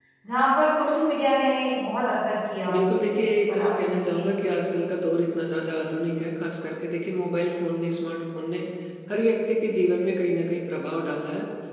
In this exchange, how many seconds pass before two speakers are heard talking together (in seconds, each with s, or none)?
2.7 s